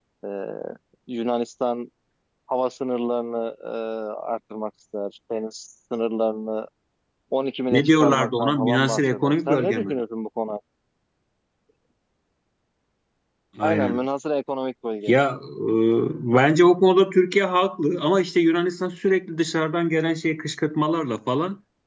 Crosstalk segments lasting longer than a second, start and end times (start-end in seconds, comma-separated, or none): 7.7-10.0